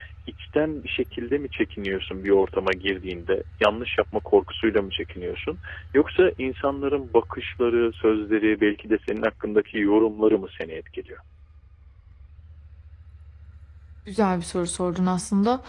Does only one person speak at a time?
Yes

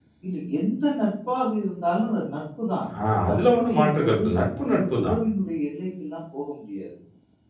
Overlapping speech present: Yes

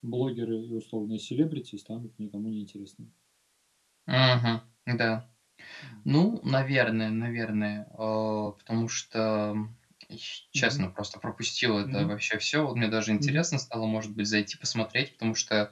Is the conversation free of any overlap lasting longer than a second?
Yes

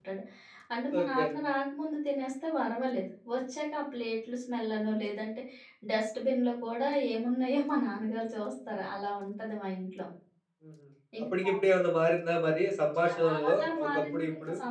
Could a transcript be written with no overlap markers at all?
No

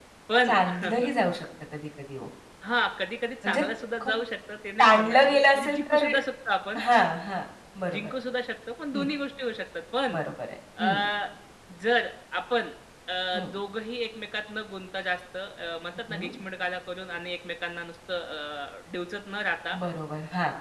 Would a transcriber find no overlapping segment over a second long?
No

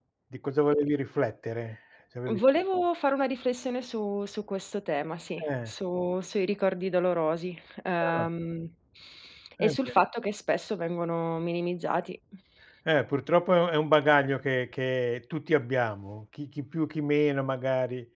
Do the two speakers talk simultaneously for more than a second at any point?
No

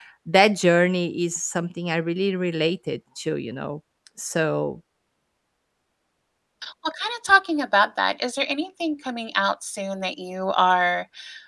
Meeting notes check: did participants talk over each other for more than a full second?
No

